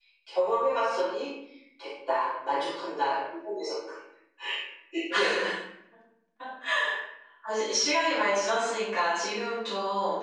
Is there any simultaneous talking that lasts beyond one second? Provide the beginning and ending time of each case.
none

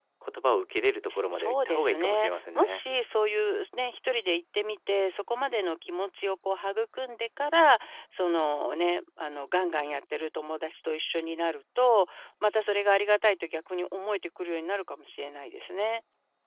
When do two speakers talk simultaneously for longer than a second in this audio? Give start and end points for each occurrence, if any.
1.3-2.8

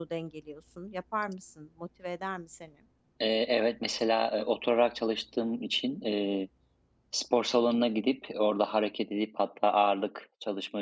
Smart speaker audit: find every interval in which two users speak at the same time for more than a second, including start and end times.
none

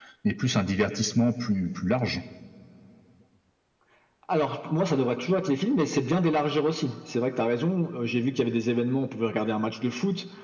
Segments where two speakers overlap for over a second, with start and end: none

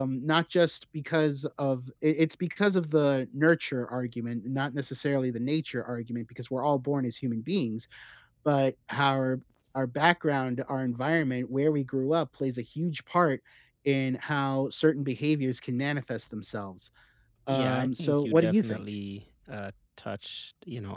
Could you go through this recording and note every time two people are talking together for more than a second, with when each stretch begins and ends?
17.5-18.8

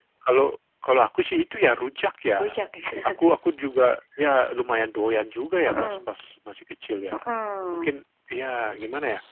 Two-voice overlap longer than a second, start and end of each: none

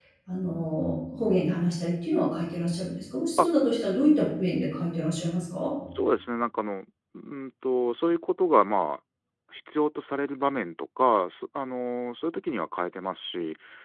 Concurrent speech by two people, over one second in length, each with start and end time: none

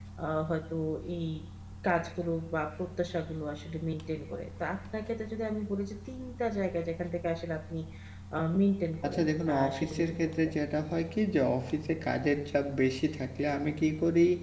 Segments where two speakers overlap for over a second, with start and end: 9.0-10.6

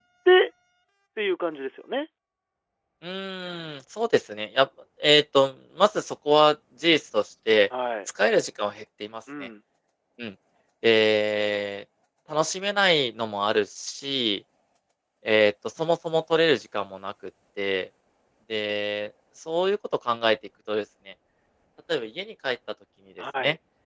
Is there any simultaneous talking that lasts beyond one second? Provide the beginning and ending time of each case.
none

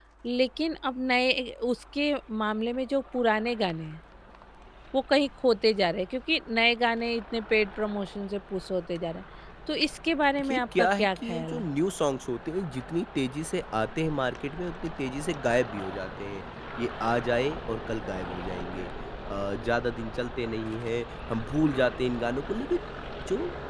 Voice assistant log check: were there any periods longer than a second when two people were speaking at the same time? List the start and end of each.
10.4-11.6

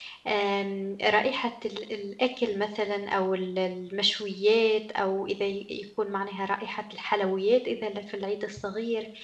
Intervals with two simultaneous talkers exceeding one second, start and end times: none

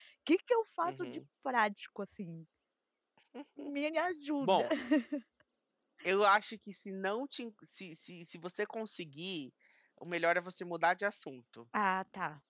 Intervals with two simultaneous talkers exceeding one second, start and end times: none

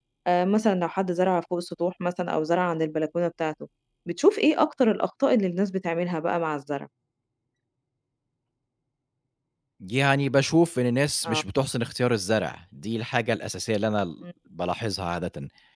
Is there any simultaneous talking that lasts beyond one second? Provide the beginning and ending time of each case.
none

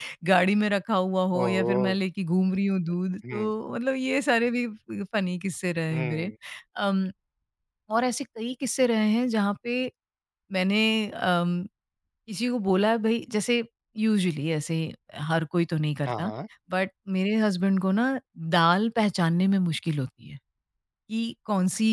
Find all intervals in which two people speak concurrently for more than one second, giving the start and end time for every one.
none

